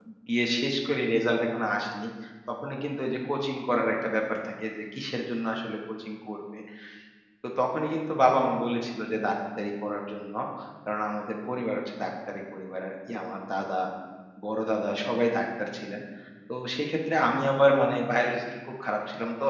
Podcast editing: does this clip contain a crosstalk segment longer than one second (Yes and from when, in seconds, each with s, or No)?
No